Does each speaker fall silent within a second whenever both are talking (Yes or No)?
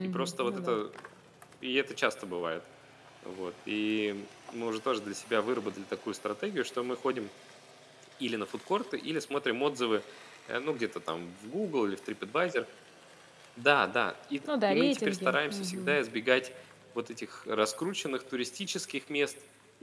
No